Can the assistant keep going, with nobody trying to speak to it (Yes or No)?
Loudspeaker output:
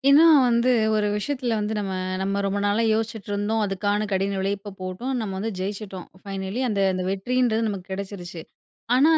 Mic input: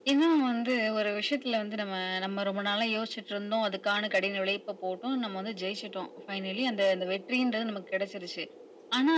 Yes